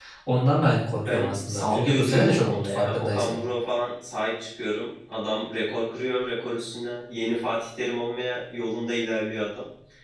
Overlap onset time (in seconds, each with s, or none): 1.1 s